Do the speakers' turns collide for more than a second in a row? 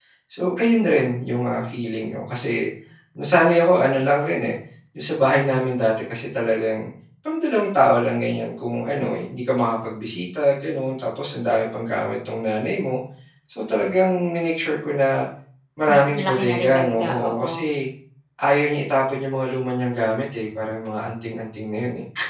Yes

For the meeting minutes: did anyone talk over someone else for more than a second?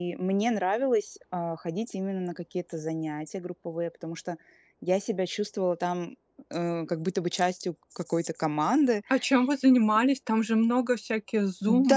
No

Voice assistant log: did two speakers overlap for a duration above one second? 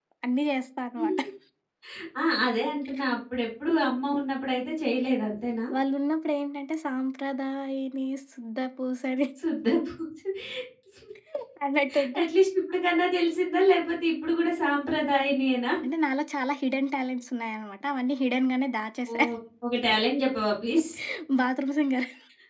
No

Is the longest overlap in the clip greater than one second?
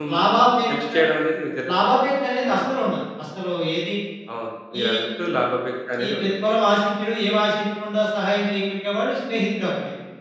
No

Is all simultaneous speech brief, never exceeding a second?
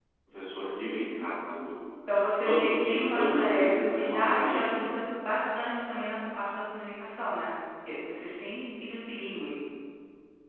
No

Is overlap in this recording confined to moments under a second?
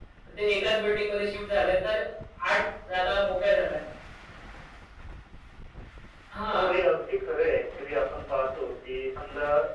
Yes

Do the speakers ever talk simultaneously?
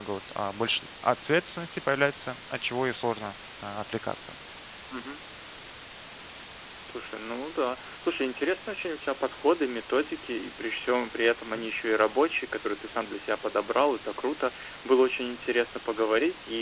No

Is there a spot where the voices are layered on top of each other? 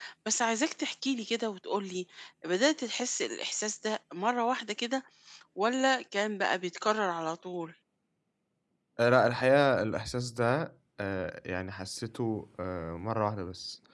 No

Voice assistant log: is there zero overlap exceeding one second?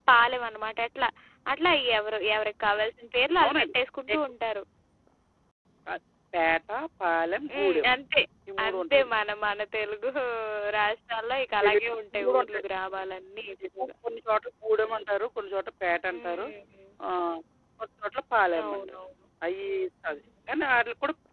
Yes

